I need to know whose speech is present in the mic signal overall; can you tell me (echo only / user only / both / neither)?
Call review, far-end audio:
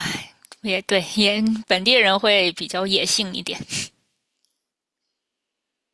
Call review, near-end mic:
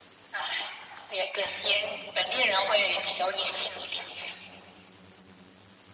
echo only